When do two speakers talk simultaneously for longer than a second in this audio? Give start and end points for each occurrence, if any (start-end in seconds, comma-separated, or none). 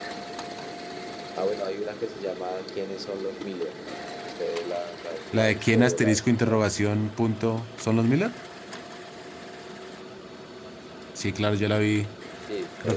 5.3-6.6